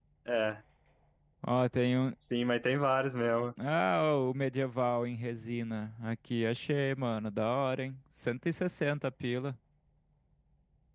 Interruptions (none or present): none